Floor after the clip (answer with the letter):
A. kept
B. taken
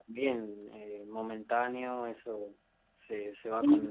B